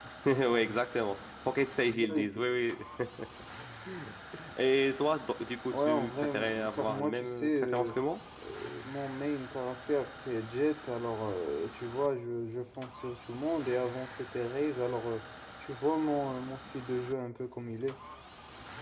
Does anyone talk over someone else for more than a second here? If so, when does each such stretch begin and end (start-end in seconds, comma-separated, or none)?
5.7-8.0